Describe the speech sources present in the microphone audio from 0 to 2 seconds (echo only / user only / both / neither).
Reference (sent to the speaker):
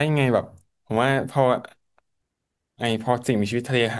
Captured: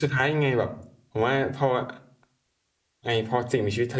echo only